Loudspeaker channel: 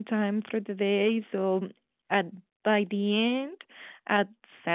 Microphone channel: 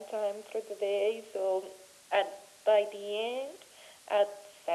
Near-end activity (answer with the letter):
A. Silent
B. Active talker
A